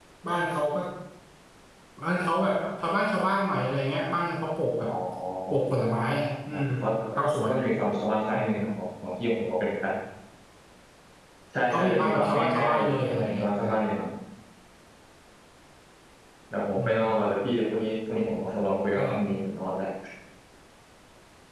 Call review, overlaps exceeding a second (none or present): present